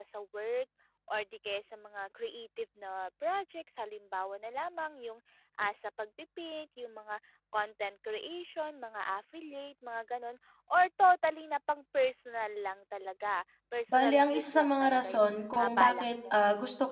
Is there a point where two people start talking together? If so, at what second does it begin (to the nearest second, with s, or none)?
14 s